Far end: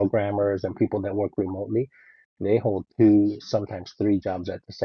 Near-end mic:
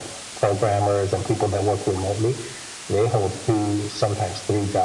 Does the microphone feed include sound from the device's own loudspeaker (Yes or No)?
Yes